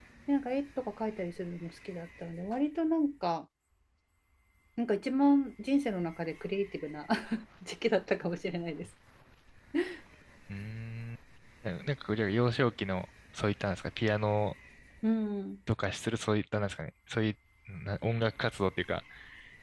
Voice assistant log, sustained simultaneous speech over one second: none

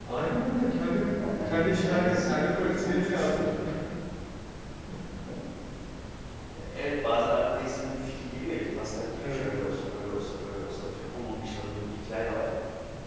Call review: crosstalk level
present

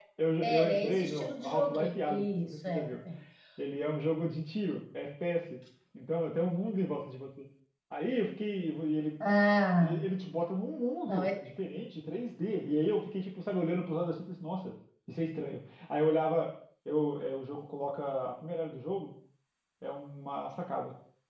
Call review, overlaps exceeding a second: present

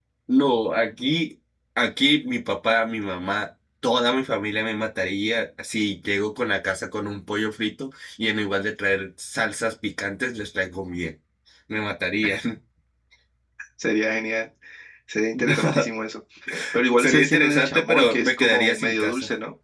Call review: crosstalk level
present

